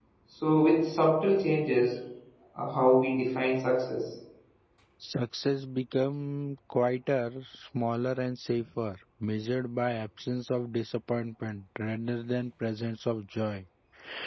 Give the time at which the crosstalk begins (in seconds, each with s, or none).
none